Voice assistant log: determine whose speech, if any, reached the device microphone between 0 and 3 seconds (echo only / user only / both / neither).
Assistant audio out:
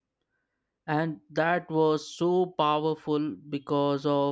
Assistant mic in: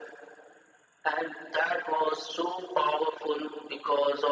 echo only